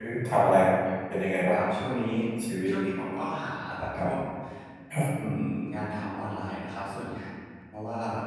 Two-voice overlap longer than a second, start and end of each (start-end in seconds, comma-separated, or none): none